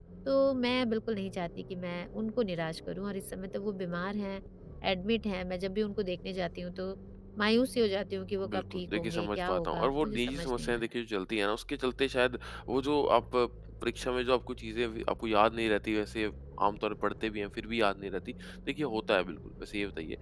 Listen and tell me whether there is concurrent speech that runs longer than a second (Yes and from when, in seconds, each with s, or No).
Yes, from 8.4 s